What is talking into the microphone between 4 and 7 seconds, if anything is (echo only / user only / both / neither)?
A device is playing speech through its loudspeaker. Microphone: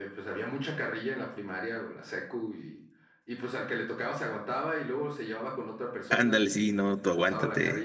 both